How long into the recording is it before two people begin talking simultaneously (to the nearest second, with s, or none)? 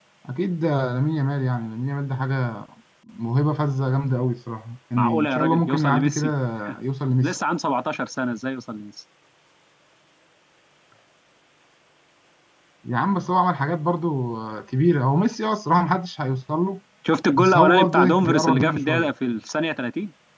5 s